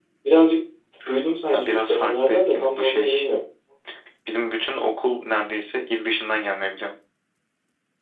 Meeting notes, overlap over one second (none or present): present